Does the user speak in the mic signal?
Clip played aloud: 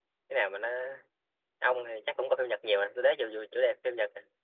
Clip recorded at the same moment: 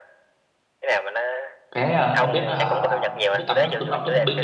Yes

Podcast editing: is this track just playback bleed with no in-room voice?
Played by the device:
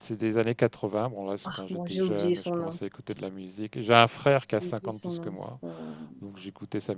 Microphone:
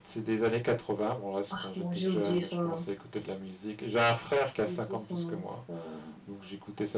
Yes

